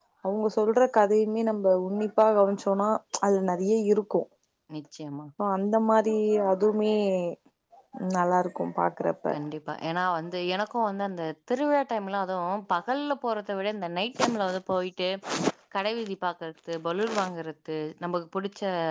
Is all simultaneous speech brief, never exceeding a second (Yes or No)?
Yes